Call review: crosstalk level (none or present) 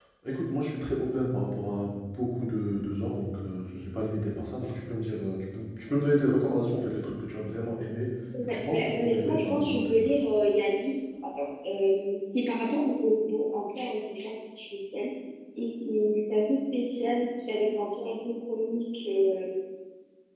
present